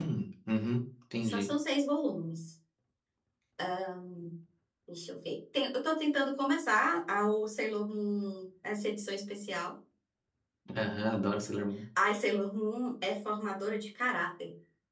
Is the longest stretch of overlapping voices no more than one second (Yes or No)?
Yes